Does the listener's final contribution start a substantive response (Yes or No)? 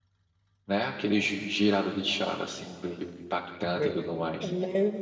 Yes